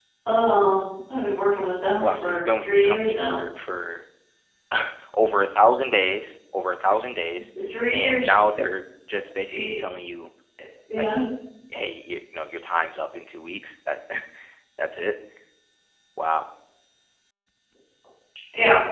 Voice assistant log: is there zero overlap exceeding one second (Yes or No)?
No